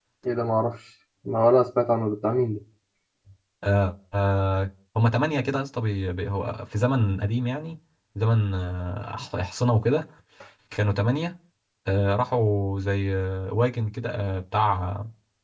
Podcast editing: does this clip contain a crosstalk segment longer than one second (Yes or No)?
No